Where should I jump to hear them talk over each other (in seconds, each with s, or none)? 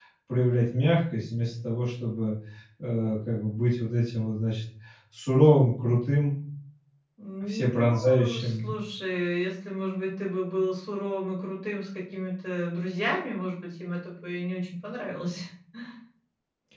7.5 s